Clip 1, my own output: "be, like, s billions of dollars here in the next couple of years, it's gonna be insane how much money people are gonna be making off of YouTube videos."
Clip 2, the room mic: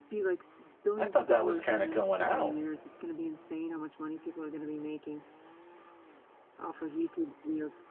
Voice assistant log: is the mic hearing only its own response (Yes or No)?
No